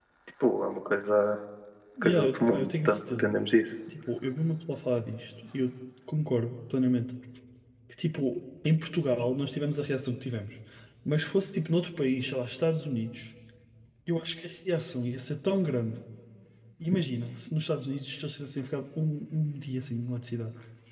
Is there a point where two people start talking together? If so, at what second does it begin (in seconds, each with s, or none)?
2.0 s